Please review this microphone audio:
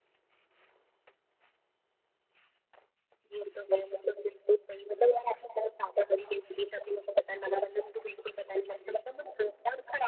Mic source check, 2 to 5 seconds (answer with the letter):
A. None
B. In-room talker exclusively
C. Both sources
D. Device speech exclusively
D